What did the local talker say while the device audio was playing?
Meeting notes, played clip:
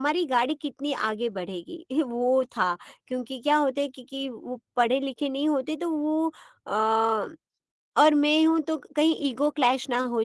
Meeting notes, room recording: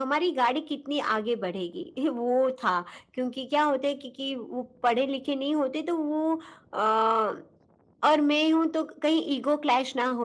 none

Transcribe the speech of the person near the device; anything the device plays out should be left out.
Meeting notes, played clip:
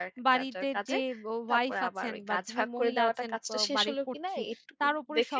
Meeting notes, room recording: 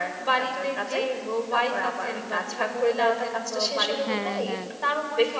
হ্যাঁ, হ্যাঁ।

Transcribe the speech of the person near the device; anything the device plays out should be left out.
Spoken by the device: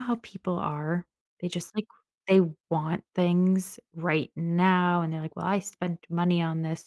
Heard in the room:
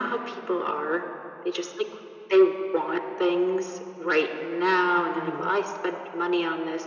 hmm

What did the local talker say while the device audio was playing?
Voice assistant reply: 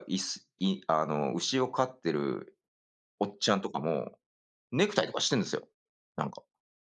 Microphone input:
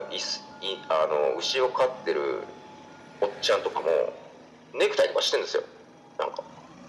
none

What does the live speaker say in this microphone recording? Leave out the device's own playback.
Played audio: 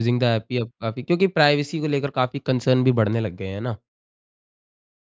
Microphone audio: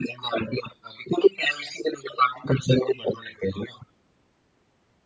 none

